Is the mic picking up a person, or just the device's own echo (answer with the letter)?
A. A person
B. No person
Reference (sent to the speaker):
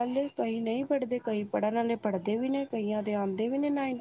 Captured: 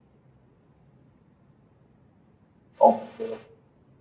A